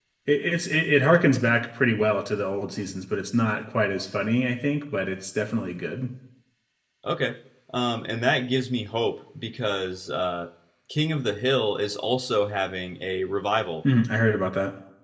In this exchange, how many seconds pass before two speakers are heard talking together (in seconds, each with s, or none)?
none